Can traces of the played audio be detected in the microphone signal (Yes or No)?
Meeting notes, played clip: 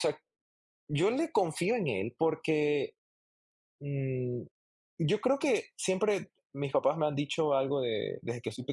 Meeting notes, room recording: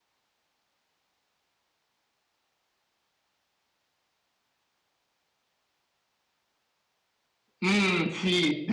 No